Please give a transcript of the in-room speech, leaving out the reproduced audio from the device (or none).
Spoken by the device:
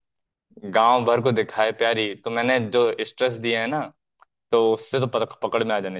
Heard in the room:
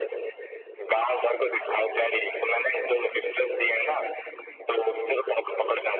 none